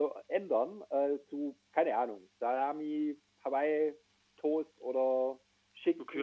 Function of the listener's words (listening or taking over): taking over